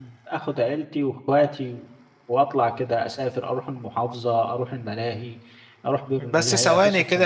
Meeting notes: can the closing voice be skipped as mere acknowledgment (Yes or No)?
No